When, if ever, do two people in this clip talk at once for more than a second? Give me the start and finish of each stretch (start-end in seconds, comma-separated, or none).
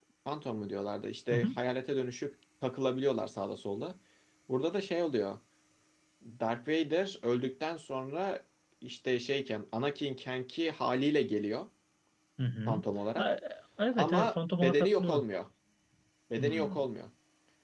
13.9-15.2